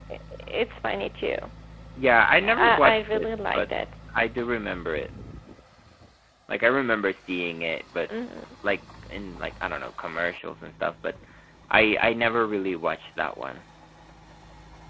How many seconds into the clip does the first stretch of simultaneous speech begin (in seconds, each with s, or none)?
2.4 s